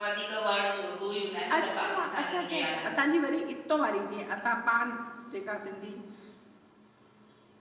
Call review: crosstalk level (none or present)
present